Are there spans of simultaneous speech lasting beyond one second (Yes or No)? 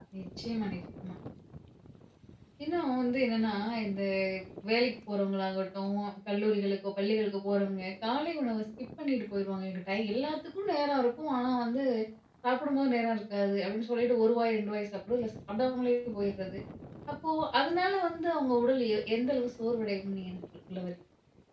No